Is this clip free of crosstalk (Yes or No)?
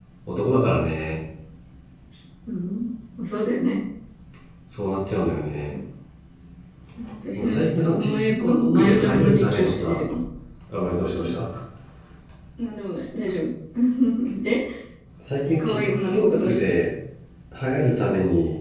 No